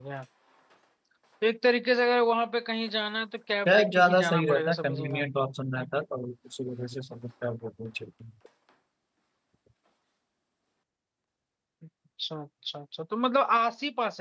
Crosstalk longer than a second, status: present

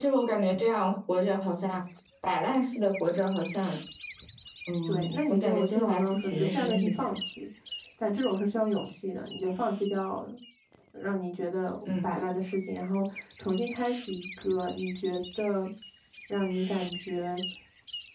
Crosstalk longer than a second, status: present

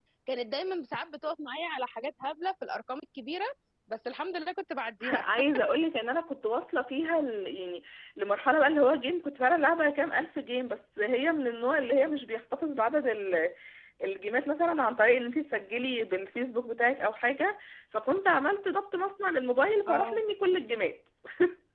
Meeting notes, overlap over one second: none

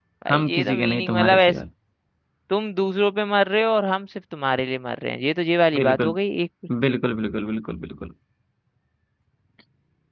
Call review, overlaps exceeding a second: present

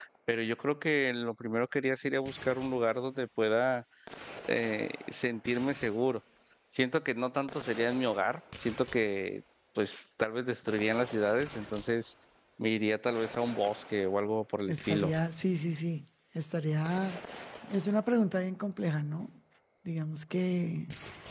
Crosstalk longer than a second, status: none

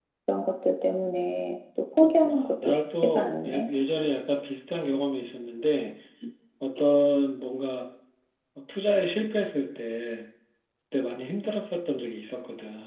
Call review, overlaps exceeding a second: present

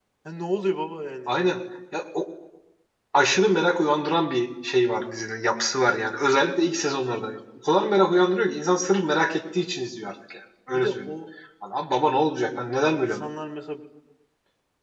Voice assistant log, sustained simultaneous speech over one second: none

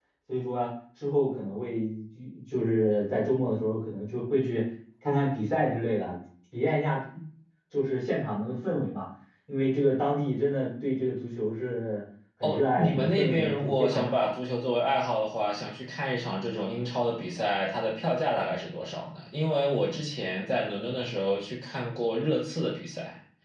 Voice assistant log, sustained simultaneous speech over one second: present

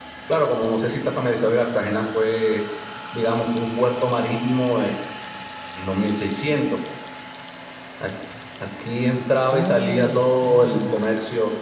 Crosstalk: present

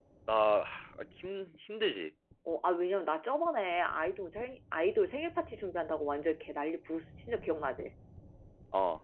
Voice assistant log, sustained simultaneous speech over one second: none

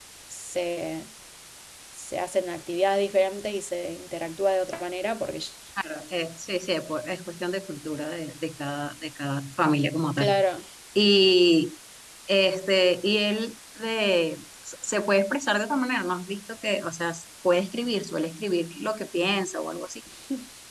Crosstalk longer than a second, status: none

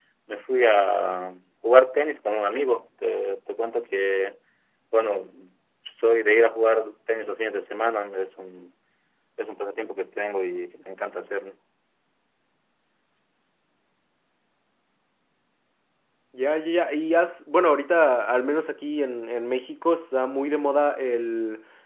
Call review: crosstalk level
none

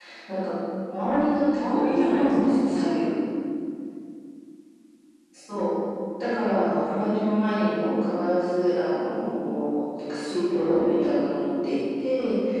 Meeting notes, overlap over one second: present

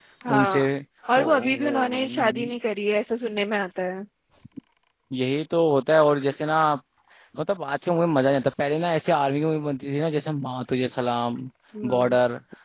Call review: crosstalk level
present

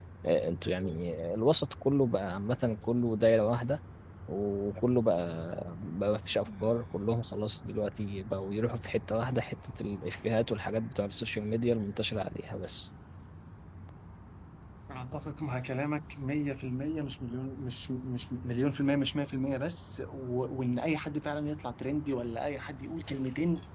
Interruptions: none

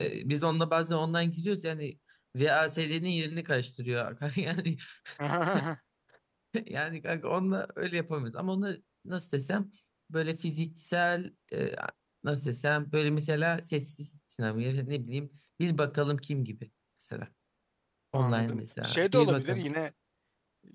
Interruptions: present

